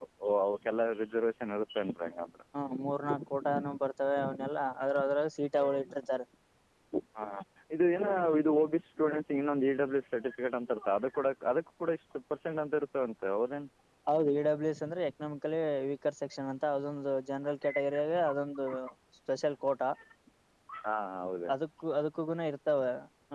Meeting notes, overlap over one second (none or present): none